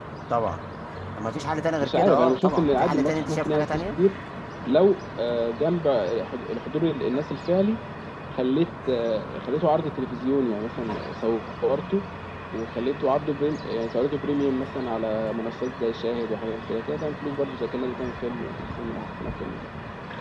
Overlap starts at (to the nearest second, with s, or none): 2 s